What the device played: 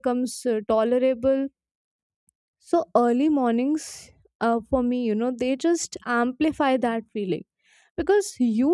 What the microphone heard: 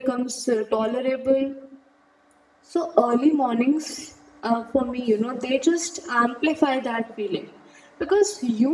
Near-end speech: none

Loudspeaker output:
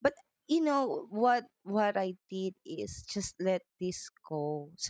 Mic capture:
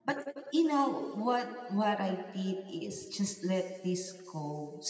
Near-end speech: none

